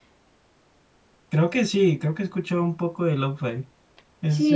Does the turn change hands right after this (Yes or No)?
Yes